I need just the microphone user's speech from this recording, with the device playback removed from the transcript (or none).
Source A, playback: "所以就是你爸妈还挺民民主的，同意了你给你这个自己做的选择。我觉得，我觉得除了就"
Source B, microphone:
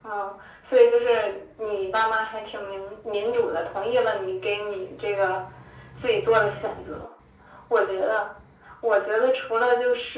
none